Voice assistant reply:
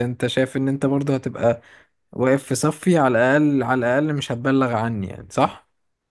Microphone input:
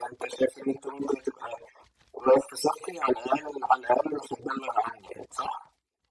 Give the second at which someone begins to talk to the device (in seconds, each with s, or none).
none